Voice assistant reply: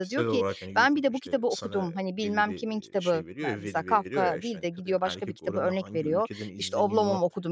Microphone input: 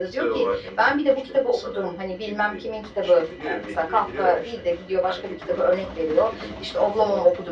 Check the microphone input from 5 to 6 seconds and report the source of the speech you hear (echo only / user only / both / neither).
echo only